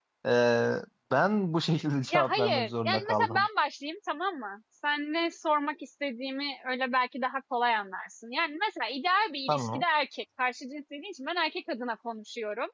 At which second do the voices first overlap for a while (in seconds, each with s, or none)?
2.1 s